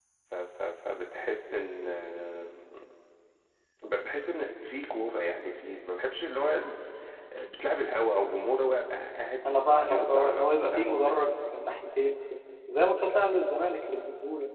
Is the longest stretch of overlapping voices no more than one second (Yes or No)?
No